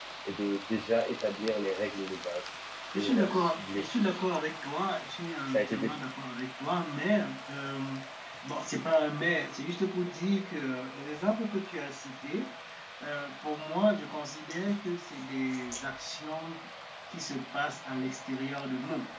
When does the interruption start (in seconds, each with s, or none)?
2.9 s